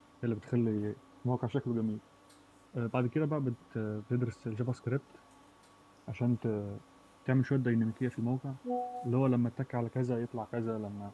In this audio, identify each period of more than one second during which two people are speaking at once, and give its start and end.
none

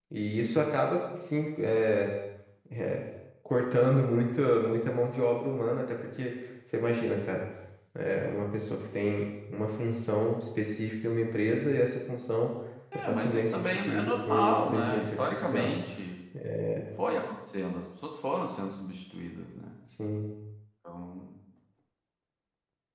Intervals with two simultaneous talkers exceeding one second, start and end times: 13.1-15.8

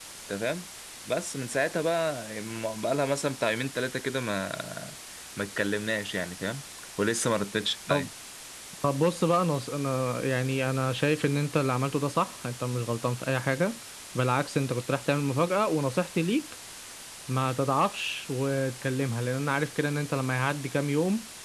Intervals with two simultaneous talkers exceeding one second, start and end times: none

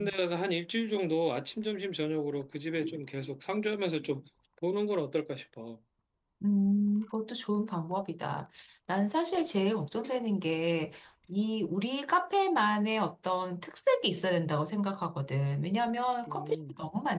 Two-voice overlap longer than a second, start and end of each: none

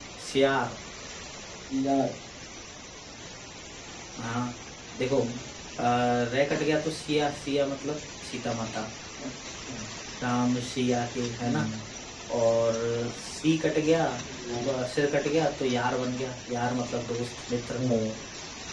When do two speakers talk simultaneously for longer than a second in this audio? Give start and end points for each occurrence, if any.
none

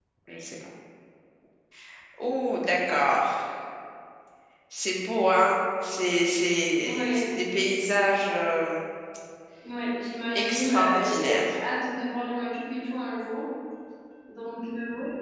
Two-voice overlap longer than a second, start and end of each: 10.3-11.6

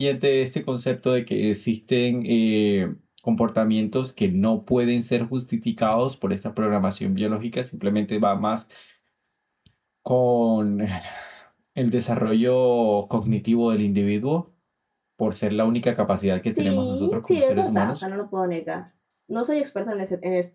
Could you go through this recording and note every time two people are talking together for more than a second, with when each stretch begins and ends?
16.4-18.0

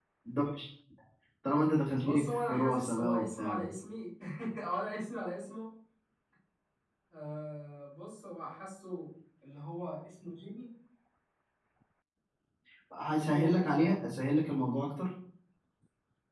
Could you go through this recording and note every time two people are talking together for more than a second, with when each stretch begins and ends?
2.0-3.7

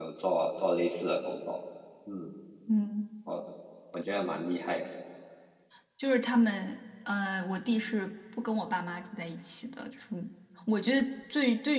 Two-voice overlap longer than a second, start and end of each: none

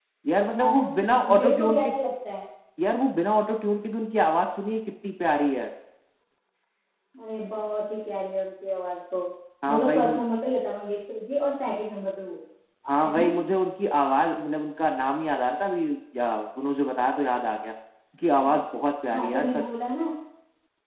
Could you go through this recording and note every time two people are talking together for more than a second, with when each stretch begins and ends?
0.5-1.9

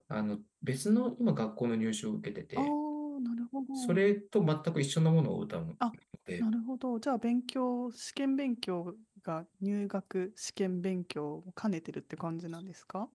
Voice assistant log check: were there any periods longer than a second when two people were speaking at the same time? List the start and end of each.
none

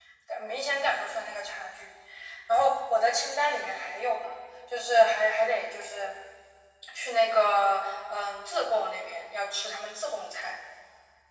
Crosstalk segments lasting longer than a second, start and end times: none

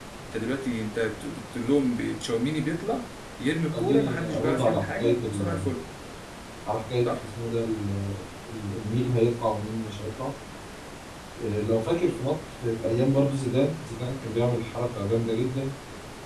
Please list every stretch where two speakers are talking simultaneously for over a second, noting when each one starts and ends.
3.8-5.6

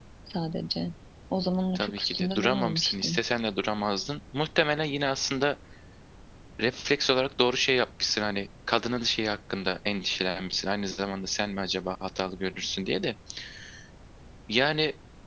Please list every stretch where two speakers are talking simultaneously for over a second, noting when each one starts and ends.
1.8-3.2

